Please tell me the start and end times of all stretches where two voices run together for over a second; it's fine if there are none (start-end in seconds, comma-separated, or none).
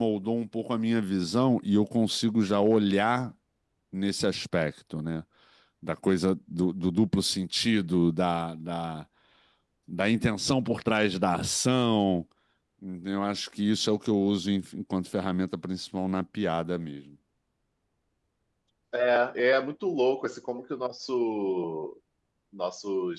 none